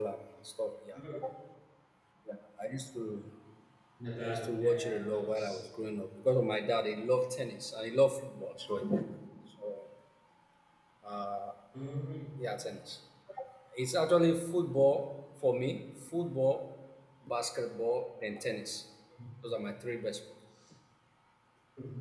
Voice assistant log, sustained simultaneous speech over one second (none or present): present